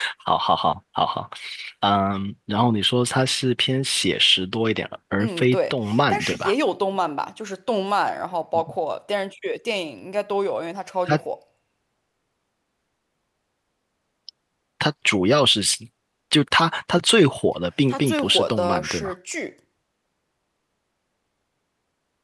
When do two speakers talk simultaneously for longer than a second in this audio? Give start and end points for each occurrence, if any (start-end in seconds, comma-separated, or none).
5.2-6.5, 17.9-19.1